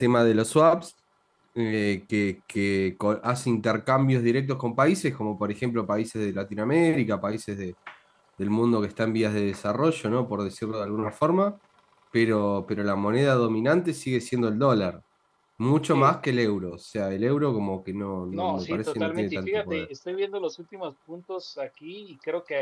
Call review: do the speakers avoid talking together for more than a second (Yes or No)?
No